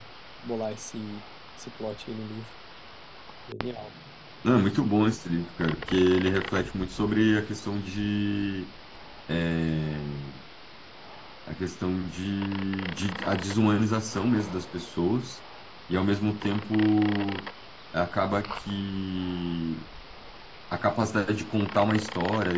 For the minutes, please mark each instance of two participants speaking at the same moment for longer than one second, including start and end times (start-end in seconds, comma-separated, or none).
none